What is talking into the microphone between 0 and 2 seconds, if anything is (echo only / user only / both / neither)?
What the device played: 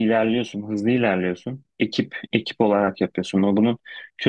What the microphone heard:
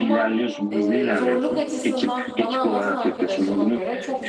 both